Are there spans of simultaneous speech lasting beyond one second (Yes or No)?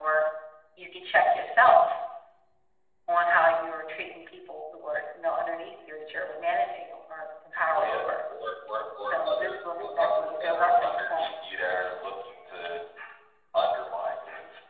Yes